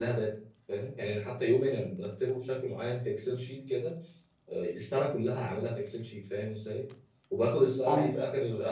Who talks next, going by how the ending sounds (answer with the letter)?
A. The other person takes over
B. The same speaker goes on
B